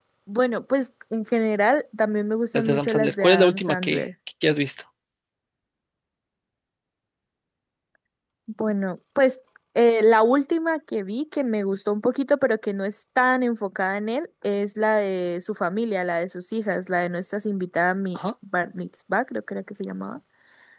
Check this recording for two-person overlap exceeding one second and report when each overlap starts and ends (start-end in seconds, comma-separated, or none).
2.5-4.0